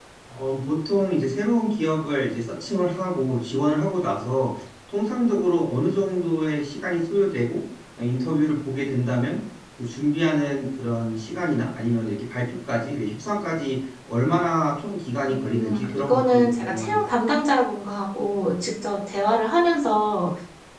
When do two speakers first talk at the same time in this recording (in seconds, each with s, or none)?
15.3 s